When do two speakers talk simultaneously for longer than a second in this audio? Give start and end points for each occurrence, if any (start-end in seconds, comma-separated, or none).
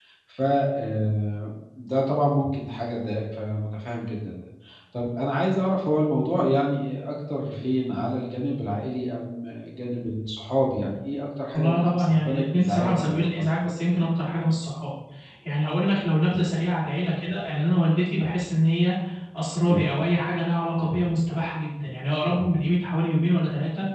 11.5-13.5